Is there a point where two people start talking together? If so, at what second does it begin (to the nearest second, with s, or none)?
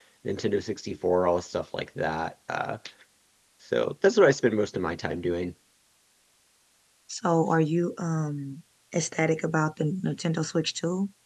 none